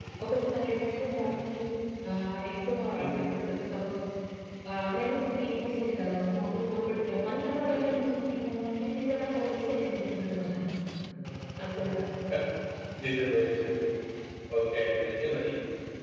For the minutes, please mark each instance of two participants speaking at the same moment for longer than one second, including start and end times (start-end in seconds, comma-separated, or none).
none